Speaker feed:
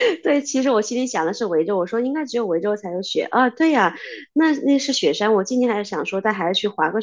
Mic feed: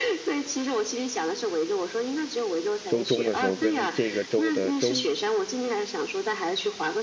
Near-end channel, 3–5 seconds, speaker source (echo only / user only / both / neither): both